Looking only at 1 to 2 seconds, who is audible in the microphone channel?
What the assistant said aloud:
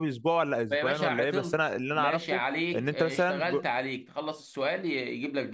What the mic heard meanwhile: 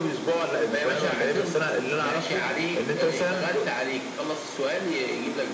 echo only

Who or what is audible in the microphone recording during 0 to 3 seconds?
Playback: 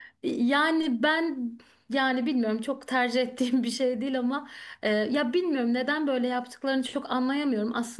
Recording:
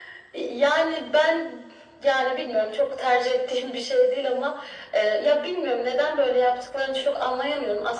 echo only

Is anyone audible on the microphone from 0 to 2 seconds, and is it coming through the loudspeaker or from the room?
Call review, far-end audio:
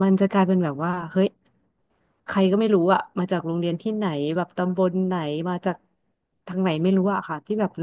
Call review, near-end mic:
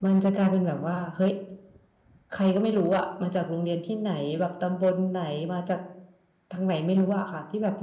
echo only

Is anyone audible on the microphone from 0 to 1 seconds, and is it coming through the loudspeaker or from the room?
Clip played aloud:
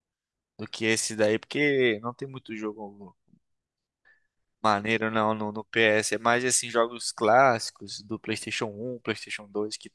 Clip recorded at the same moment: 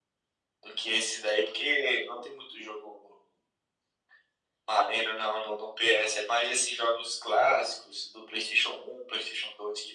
echo only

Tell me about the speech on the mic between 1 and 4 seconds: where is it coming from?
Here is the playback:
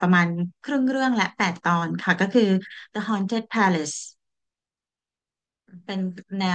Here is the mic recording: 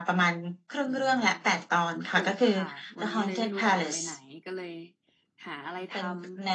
both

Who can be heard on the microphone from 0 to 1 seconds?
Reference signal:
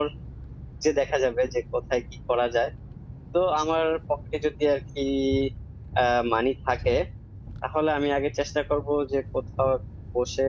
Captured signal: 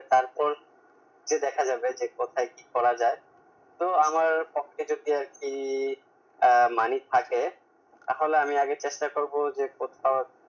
echo only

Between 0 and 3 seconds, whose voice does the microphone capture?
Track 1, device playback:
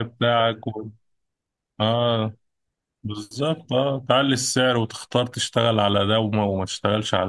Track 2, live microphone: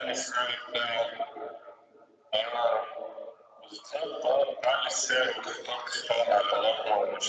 echo only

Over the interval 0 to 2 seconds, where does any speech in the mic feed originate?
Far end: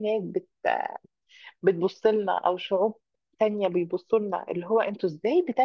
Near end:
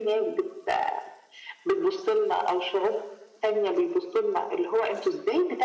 echo only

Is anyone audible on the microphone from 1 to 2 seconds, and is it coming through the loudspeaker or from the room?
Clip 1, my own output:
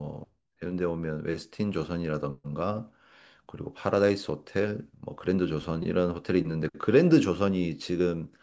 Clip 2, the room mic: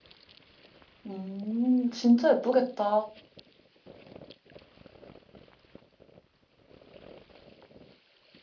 user only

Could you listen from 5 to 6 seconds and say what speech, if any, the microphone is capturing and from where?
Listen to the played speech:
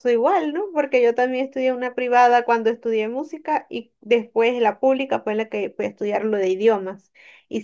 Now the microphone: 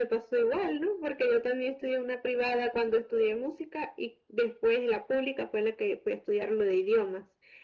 echo only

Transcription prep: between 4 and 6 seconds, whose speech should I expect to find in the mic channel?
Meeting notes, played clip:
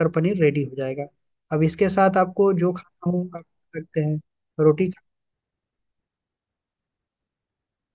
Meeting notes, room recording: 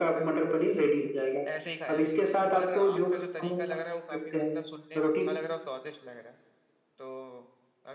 both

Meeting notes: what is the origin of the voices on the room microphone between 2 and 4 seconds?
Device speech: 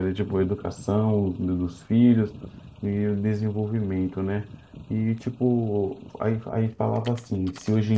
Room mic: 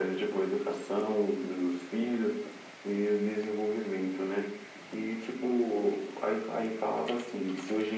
echo only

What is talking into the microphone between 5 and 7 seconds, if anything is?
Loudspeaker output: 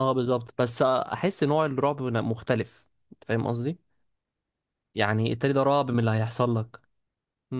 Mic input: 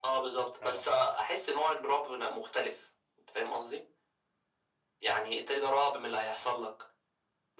echo only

